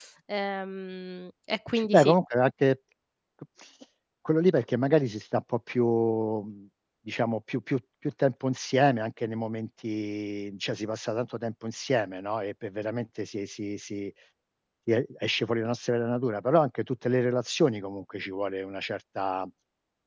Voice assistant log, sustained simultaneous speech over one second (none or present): none